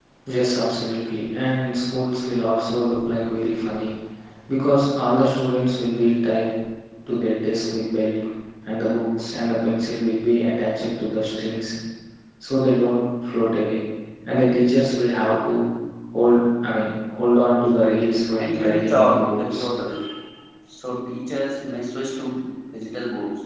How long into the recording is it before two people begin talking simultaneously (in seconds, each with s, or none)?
18.4 s